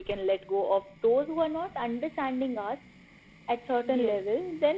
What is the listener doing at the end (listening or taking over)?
listening